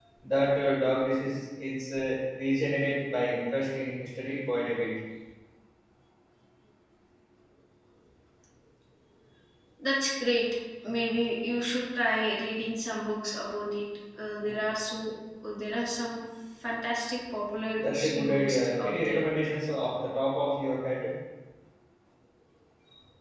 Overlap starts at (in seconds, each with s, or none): 17.8 s